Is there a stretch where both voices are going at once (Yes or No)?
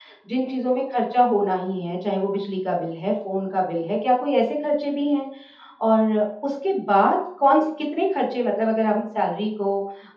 No